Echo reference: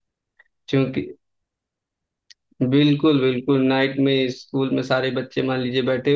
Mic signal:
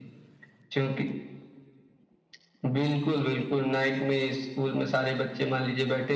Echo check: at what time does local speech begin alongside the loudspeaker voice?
none

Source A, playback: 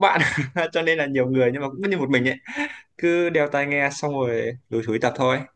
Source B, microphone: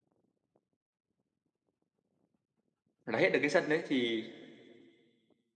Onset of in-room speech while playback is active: 3.0 s

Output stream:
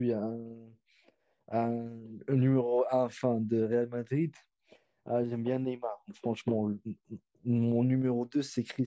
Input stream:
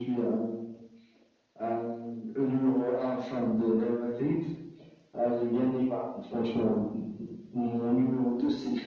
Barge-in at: none

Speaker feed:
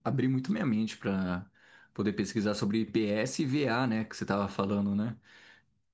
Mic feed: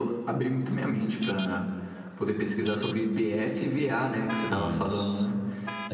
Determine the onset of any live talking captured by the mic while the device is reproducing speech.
4.5 s

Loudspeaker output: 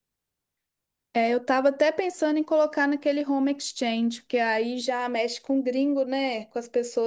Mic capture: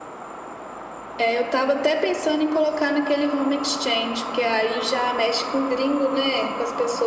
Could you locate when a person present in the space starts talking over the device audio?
none

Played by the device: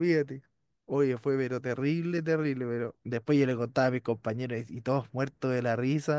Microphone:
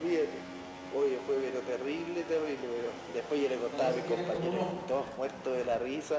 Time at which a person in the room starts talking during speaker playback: 3.7 s

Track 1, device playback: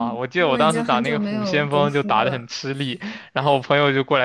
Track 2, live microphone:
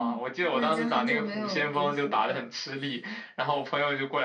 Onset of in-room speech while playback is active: none

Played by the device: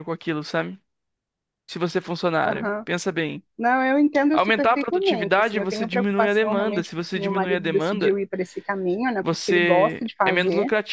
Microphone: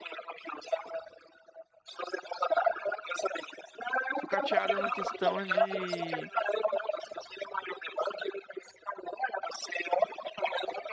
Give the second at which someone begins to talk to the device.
4.1 s

